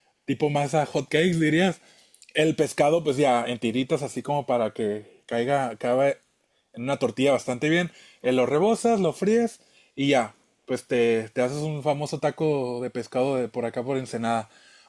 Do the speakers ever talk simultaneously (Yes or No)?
No